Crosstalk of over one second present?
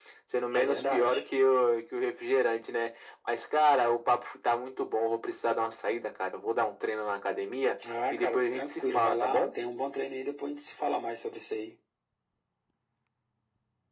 Yes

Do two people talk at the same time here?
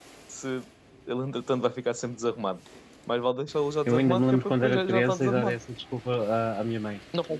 Yes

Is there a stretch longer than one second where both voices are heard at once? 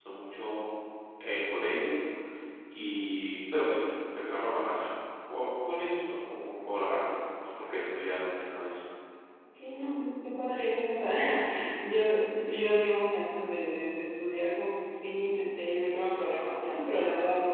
No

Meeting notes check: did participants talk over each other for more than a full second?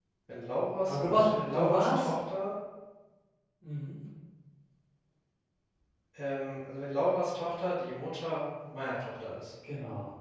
Yes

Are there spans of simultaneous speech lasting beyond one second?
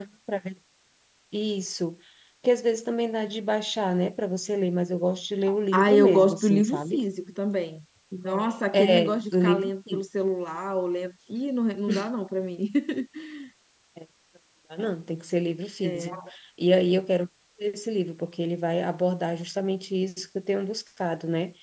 Yes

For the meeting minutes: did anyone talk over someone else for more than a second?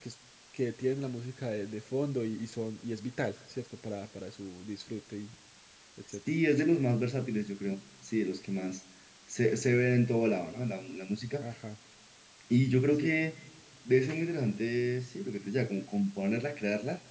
No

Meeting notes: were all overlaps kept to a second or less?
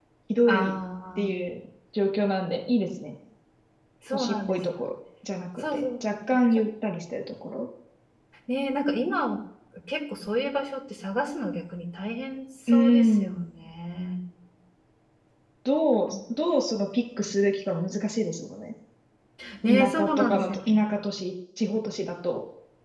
No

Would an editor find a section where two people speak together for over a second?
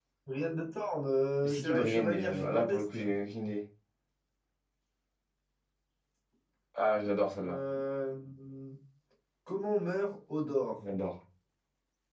Yes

